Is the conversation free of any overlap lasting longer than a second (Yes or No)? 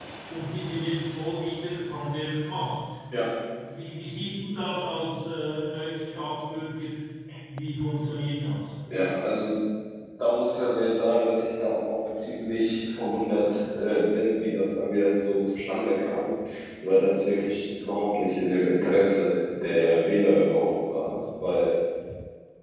Yes